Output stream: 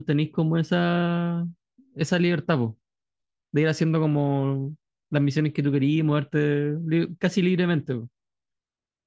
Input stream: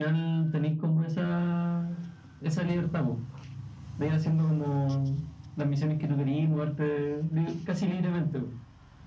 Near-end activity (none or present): none